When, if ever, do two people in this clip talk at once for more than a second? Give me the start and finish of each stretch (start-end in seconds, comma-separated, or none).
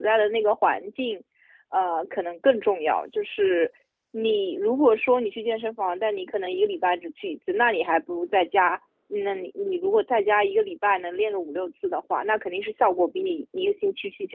none